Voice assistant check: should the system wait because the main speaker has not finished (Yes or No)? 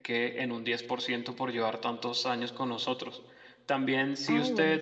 Yes